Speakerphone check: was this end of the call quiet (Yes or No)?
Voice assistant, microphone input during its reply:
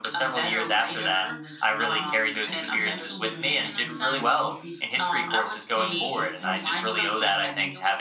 No